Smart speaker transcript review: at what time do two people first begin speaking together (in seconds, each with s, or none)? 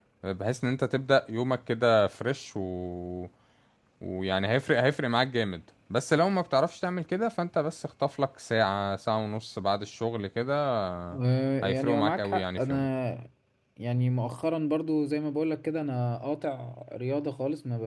11.6 s